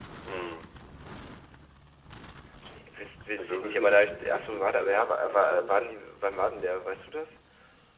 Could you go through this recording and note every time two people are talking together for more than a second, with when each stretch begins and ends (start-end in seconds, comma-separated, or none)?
3.4-6.1